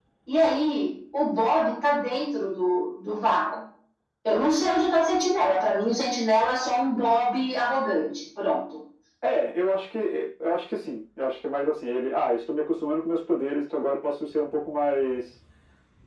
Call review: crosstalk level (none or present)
none